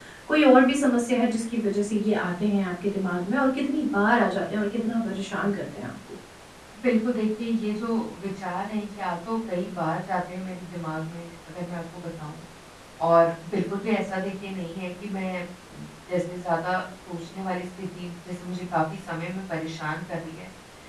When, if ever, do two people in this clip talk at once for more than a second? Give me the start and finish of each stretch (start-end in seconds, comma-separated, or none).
none